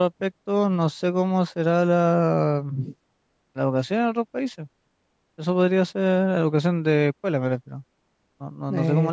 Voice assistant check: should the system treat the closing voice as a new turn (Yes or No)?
Yes